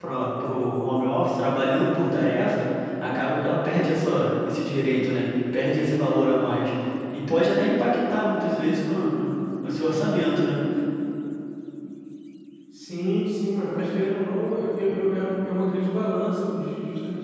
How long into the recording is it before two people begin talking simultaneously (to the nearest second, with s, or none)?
none